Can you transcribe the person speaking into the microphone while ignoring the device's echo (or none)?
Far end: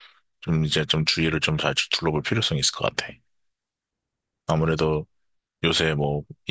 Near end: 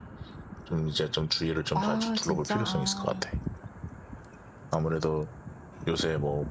아, 진짜, 아.